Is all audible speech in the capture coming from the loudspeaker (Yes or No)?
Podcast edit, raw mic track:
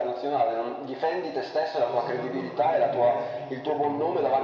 No